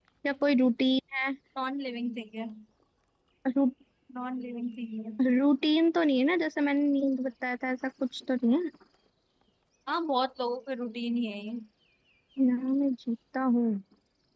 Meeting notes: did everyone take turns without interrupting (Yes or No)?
Yes